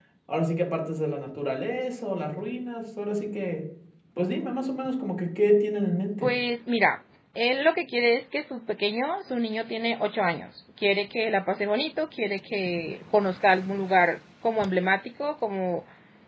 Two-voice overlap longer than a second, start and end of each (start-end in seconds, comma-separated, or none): none